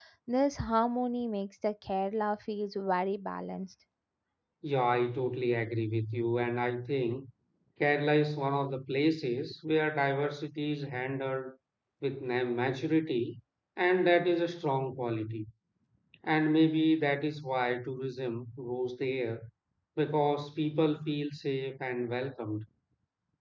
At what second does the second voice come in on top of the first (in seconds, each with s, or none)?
none